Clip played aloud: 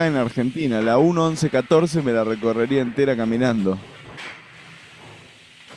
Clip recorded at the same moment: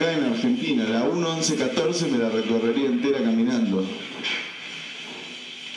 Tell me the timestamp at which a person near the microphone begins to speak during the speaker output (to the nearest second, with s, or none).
none